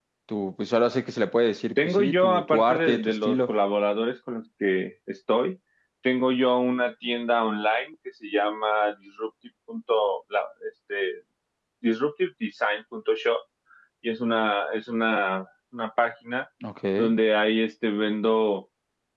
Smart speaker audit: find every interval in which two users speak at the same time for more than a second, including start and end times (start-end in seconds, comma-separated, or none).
1.8-3.5